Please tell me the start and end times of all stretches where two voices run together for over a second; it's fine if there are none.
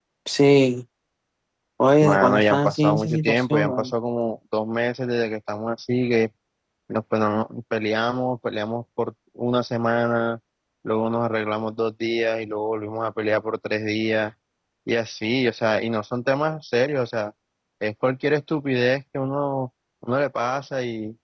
2.0-3.9

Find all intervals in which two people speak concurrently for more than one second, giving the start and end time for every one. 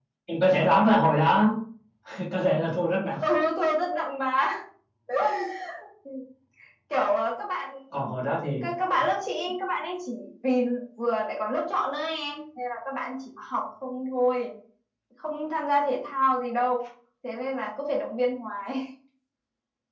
none

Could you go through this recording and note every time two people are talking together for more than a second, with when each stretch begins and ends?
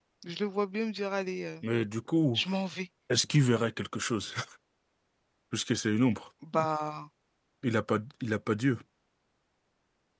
none

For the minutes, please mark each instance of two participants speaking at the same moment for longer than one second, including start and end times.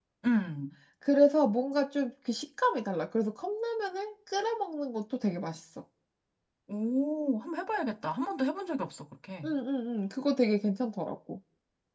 none

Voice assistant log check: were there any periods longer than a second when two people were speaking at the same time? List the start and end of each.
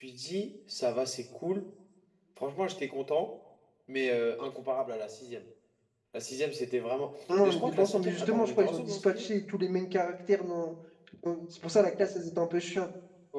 7.4-9.3

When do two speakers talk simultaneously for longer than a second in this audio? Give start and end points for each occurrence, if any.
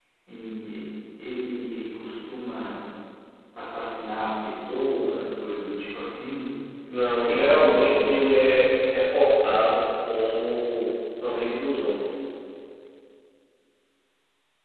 7.2-8.5

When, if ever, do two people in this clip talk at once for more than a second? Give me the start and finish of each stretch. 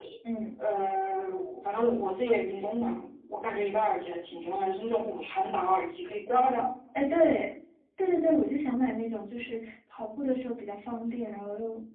none

